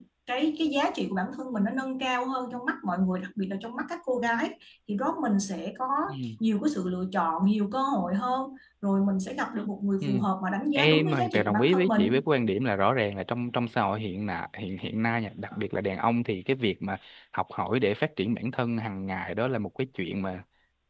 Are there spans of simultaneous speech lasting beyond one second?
Yes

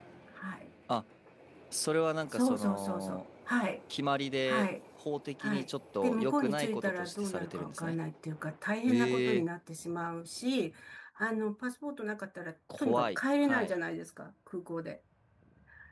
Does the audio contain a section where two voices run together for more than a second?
Yes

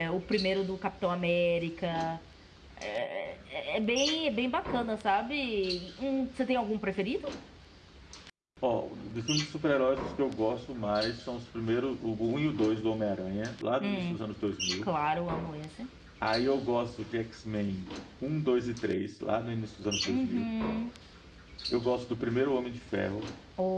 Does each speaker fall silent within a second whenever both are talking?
Yes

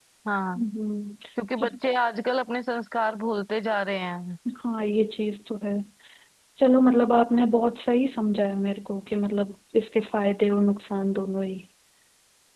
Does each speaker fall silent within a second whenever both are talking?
Yes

